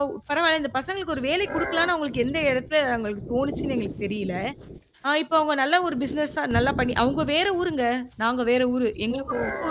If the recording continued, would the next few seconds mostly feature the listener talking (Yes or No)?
Yes